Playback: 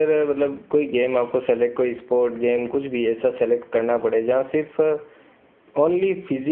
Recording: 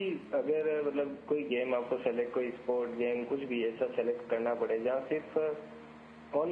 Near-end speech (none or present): none